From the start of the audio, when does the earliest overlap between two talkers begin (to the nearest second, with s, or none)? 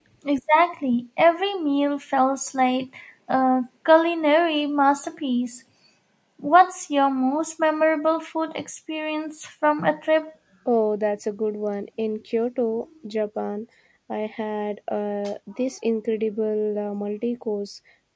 none